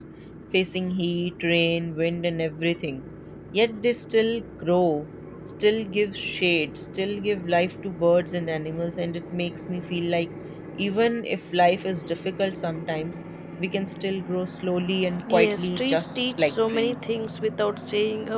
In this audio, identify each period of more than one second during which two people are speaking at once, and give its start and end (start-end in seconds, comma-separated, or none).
15.3-17.2